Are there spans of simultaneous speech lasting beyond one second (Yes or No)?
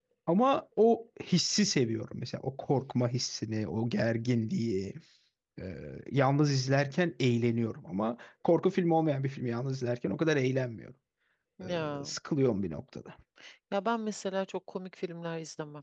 No